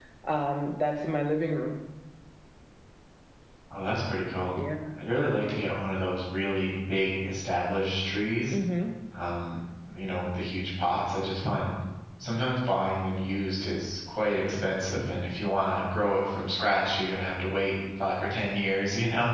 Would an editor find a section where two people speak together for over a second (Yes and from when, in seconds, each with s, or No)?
No